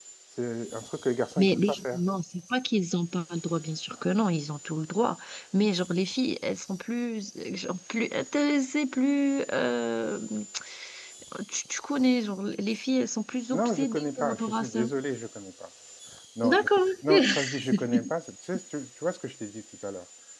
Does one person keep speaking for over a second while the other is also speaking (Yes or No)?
Yes